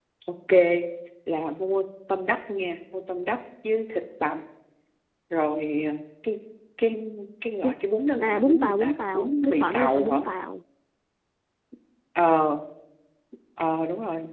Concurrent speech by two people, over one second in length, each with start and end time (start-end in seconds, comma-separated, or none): 8.2-10.2